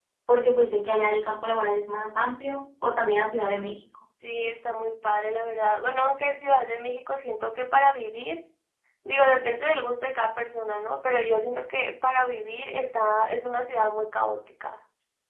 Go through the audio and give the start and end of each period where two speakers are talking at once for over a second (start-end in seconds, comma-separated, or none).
none